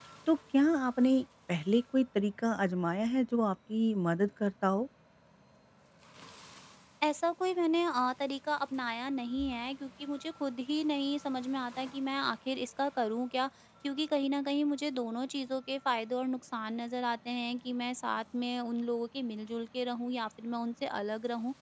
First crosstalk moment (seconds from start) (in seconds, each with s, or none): none